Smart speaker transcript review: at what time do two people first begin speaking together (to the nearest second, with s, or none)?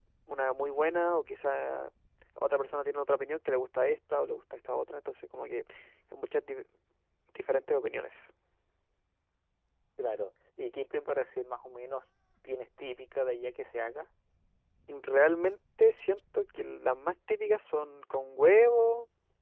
none